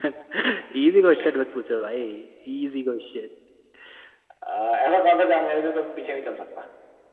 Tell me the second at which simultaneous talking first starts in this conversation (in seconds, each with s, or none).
none